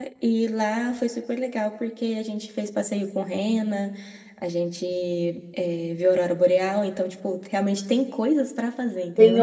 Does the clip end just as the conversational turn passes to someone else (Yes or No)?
Yes